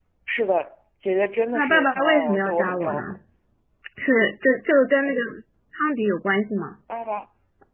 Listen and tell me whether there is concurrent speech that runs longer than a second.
Yes, from 1.5 s

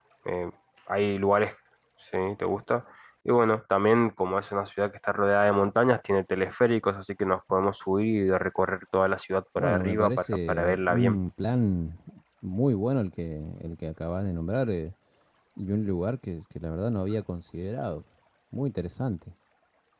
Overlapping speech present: Yes, from 9.6 s

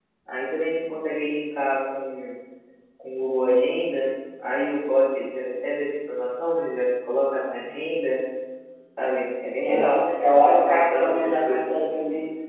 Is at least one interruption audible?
Yes, from 9.7 s

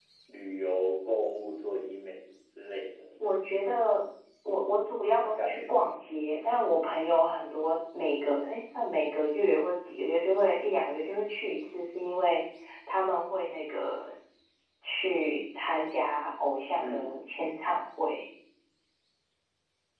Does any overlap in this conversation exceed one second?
No

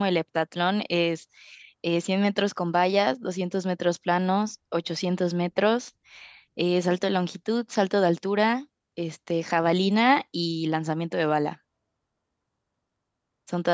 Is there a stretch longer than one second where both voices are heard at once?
No

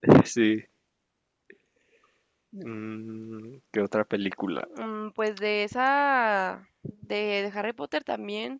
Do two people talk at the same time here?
No

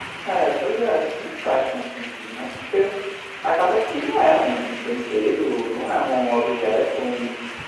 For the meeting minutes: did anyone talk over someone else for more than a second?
No

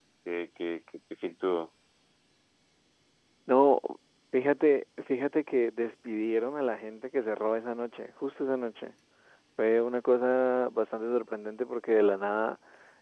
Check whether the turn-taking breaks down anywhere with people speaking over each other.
No

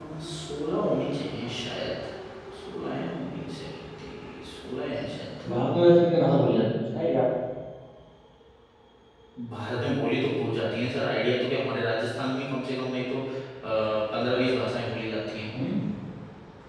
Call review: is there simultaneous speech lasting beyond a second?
No

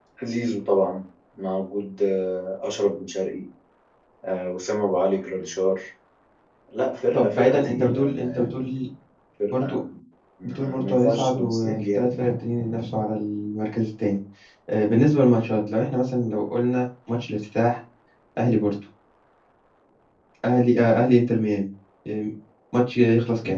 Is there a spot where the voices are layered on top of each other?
Yes, from 7.1 s

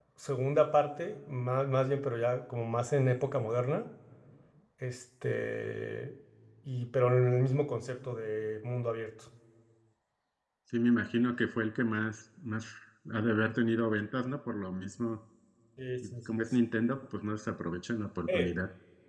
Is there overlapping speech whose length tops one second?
No

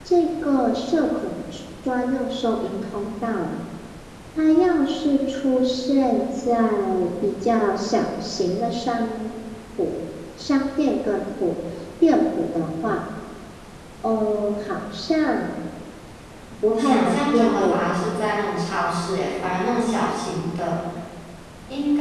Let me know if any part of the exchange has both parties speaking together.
Yes, from 16.7 s

